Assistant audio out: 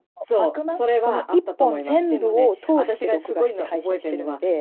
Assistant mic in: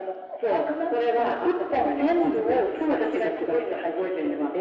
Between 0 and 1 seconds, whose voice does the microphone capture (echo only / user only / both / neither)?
echo only